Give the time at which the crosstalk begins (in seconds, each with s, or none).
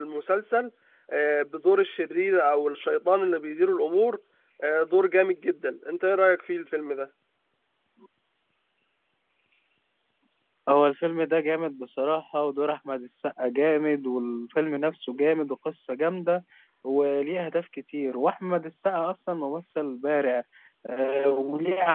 none